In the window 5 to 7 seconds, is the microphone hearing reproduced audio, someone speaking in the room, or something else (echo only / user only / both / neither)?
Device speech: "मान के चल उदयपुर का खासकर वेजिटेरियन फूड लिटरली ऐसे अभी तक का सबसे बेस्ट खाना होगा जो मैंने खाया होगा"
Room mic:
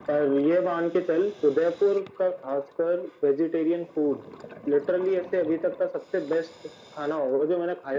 echo only